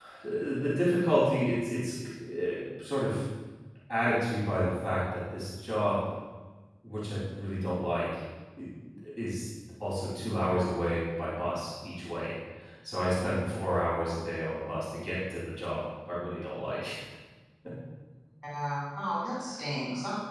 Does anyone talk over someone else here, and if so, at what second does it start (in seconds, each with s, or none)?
none